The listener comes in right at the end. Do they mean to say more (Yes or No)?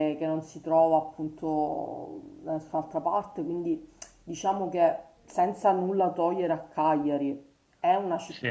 No